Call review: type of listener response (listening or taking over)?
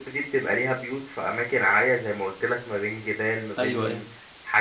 listening